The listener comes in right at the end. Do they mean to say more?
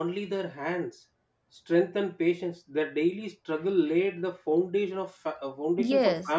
No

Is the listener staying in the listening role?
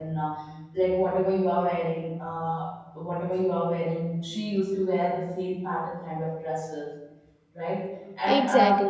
Yes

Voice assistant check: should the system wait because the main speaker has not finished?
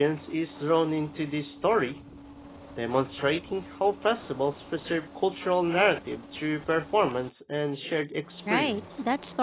No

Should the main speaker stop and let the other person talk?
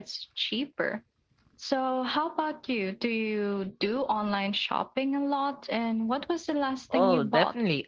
Yes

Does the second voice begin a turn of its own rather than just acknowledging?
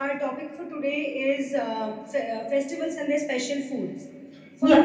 No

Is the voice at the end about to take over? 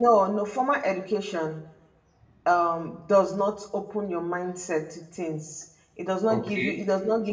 No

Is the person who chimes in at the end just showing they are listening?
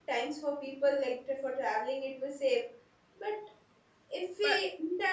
Yes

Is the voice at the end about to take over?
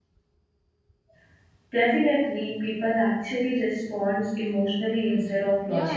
Yes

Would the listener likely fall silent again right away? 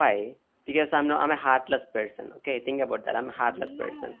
Yes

